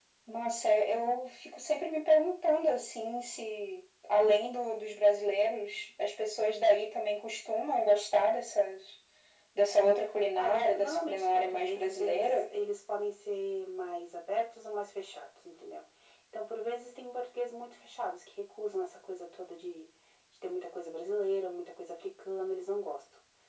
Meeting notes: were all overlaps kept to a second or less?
No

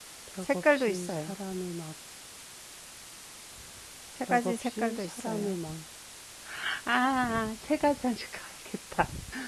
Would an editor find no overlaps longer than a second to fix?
No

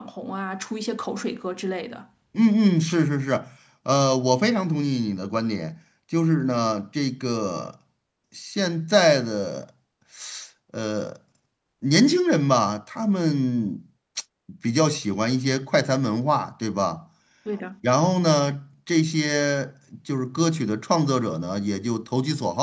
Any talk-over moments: No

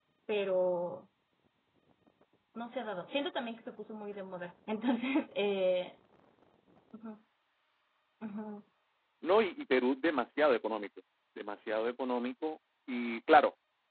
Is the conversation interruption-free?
Yes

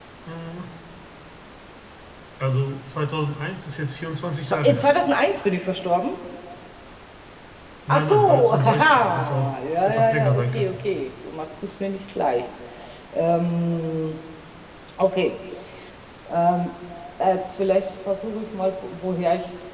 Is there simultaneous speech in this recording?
Yes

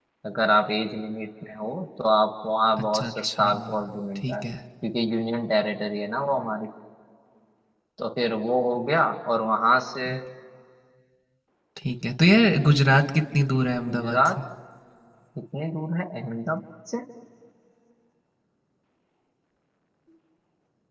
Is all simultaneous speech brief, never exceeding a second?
No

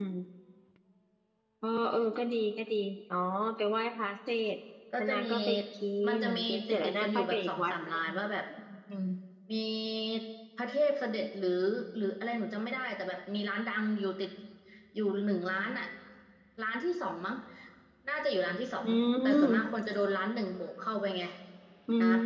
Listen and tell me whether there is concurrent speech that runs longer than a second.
Yes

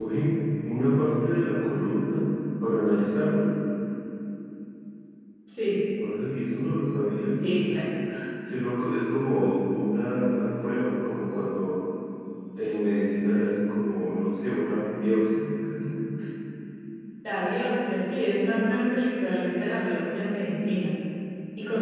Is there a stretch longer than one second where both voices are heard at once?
No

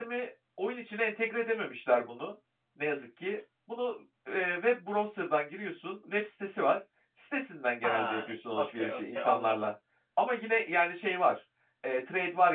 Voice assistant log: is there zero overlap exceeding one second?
No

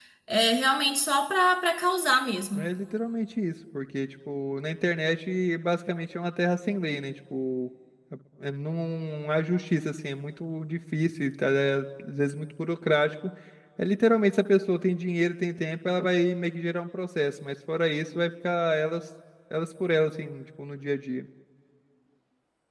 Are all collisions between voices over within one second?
Yes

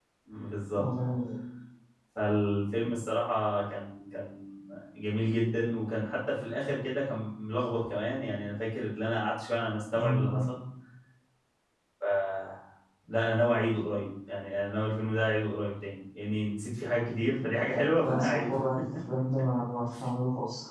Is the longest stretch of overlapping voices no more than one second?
Yes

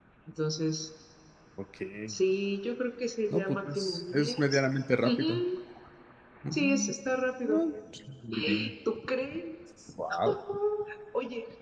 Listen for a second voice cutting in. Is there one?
Yes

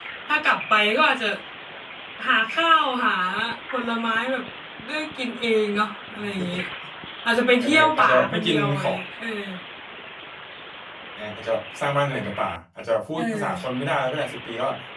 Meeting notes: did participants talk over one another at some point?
Yes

